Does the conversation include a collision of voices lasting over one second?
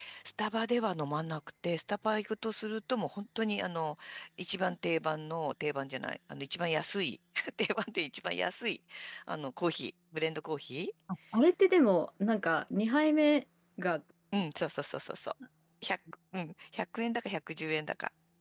No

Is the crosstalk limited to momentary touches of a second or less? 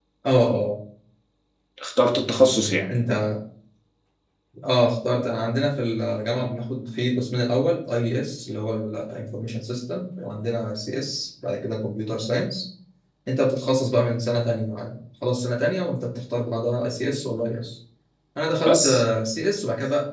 Yes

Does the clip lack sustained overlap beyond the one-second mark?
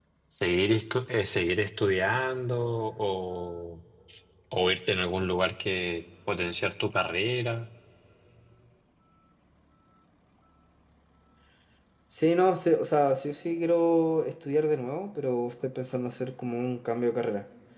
Yes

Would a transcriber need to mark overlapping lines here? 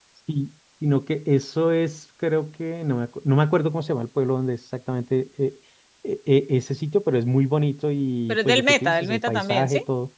Yes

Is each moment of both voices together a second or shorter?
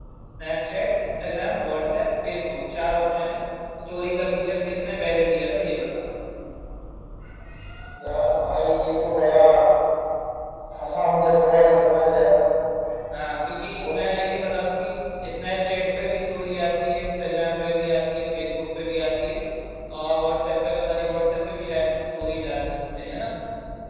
Yes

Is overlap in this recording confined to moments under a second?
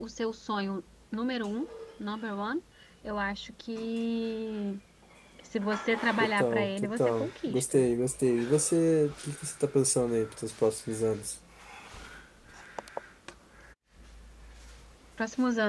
No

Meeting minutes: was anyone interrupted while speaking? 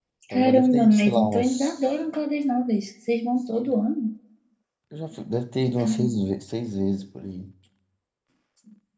Yes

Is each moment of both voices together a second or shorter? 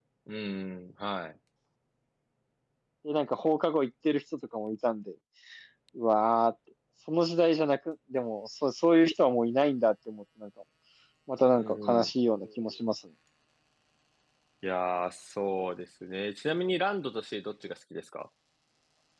Yes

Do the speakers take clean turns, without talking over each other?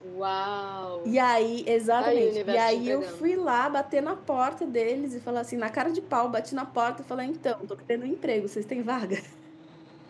No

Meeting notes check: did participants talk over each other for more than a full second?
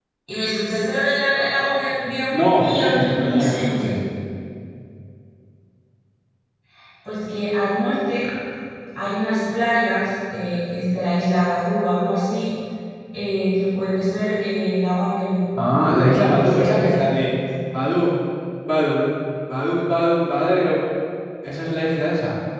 Yes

